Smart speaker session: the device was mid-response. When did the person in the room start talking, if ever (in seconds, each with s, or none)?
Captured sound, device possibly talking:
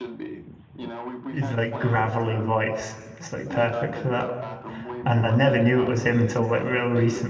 1.3 s